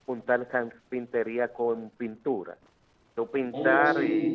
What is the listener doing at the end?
taking over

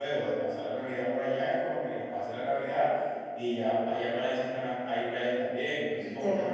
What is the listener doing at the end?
taking over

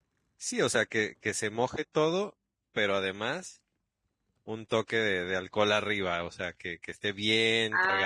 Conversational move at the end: taking over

